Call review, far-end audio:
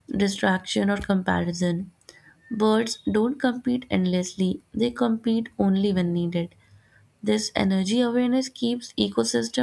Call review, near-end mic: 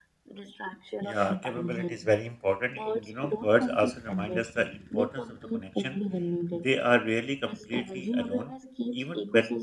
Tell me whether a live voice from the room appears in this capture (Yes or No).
Yes